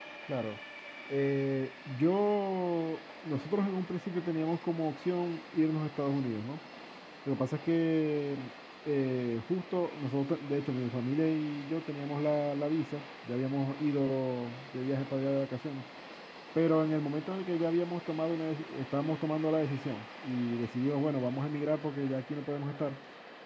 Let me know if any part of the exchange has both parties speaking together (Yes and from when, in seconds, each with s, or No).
No